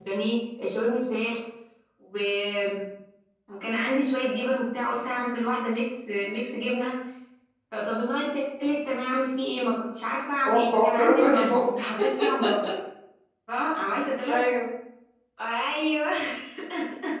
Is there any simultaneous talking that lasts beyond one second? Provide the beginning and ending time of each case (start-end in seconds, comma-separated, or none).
10.5-11.9